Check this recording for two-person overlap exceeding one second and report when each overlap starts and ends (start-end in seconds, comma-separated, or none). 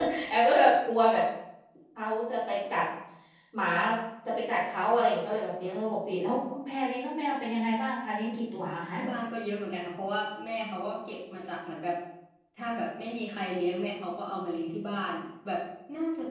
none